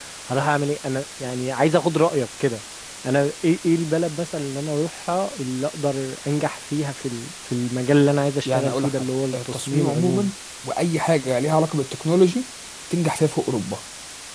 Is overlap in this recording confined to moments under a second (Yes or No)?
No